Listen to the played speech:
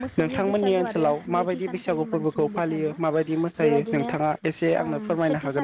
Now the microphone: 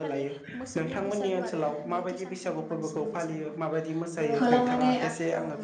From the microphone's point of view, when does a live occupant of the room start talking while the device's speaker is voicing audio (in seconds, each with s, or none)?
4.4 s